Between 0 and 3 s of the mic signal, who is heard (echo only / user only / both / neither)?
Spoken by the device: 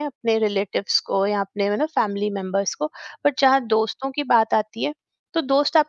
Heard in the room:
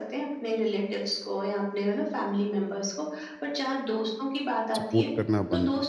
echo only